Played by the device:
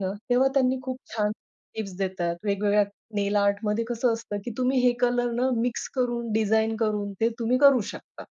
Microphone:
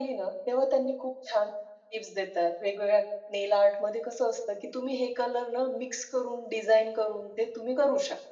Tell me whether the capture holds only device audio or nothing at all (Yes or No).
Yes